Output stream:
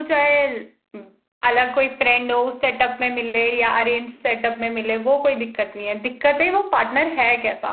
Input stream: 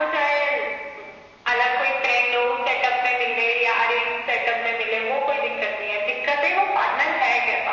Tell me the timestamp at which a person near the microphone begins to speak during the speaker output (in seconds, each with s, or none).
none